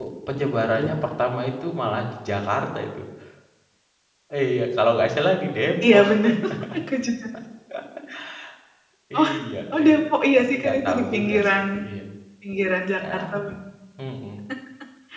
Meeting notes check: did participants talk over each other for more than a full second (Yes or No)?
Yes